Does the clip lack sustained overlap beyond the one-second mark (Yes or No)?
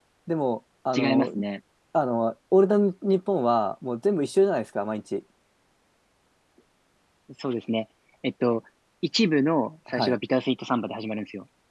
Yes